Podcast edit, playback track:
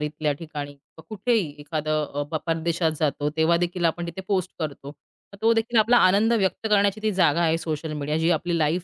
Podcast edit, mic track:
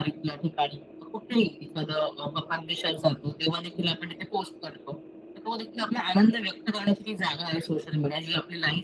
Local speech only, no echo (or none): none